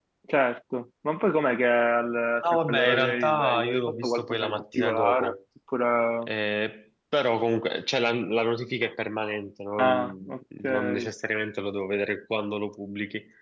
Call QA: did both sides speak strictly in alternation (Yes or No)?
No